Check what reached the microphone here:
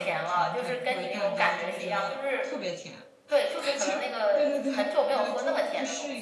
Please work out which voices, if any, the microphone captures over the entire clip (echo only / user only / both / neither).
both